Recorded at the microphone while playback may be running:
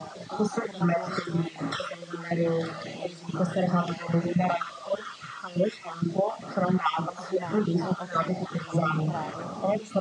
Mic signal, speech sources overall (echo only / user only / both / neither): both